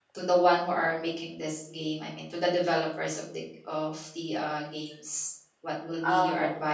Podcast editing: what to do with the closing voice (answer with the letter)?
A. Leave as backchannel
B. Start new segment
A